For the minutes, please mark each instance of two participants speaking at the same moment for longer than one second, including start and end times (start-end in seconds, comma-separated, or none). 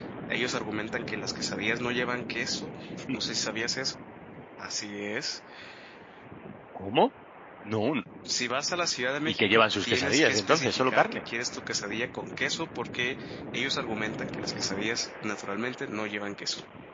9.3-11.2